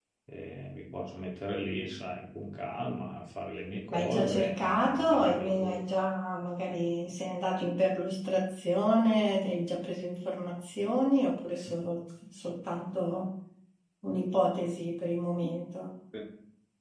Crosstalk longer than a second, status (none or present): present